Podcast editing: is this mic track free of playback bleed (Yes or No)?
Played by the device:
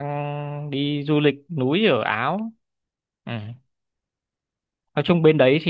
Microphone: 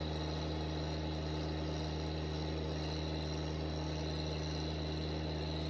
Yes